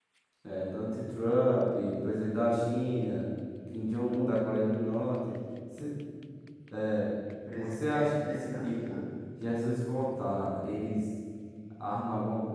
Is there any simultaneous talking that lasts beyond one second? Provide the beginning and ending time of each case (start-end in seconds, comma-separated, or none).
7.6-9.0